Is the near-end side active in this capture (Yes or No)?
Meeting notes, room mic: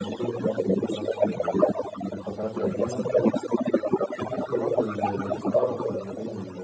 Yes